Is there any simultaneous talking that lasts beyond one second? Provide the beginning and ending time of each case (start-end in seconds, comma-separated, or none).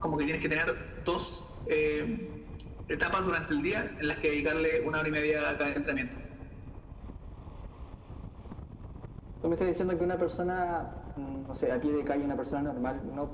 none